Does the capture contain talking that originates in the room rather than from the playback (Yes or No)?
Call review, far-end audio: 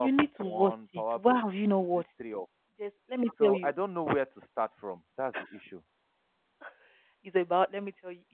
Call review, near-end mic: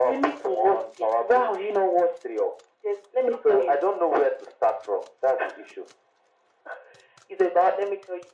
No